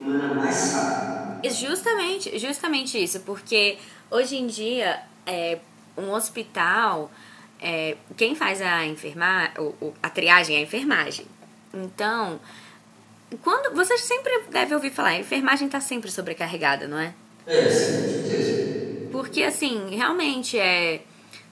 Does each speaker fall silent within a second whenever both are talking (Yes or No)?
Yes